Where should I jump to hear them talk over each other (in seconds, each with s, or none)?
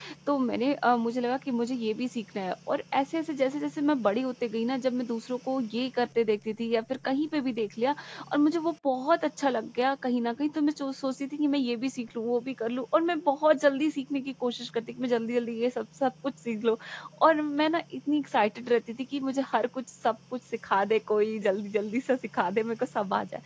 none